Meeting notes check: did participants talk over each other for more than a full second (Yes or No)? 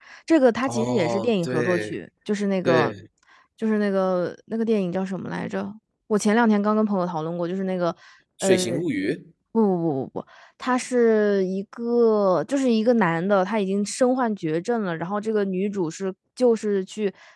Yes